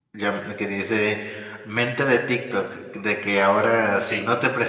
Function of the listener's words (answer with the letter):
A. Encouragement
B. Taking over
A